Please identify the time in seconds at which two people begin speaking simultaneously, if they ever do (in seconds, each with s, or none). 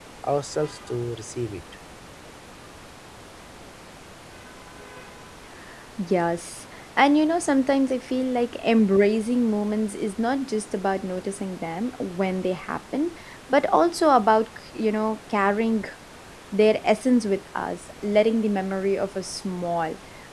none